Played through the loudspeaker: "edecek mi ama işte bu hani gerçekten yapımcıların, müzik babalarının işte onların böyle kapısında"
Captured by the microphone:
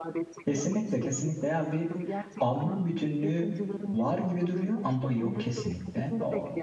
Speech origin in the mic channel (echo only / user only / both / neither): both